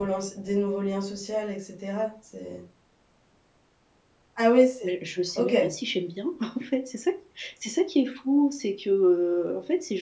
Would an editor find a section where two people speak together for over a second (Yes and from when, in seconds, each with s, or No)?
No